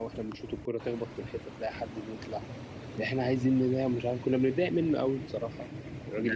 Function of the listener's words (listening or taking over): taking over